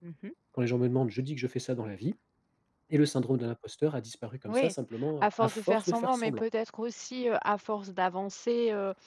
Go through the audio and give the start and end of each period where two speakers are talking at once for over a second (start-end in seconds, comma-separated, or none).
5.2-6.4